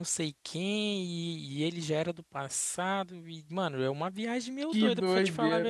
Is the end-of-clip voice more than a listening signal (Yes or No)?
No